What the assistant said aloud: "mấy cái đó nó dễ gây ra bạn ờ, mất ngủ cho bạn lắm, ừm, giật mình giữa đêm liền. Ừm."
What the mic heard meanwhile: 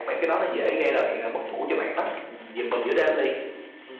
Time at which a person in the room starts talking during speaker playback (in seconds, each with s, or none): none